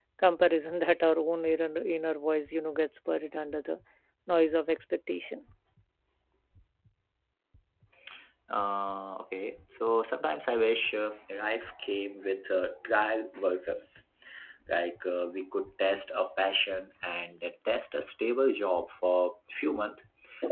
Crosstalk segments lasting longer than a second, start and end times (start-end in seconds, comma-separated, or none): none